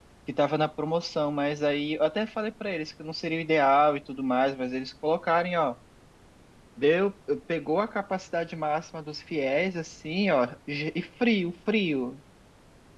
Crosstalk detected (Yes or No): No